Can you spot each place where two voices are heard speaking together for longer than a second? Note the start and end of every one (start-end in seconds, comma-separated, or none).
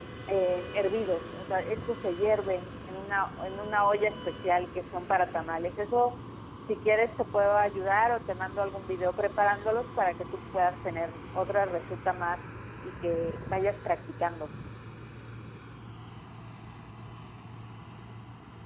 none